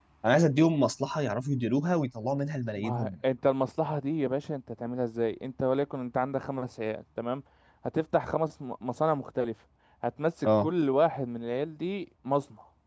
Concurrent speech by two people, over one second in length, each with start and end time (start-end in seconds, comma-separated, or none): none